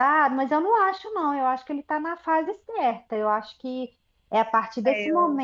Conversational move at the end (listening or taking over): listening